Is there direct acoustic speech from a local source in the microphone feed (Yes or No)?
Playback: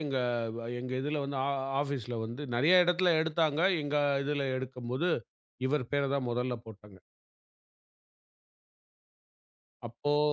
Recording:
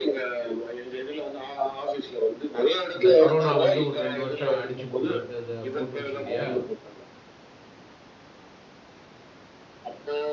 Yes